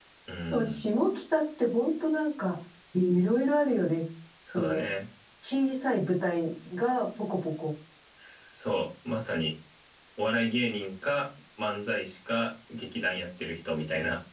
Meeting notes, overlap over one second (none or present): none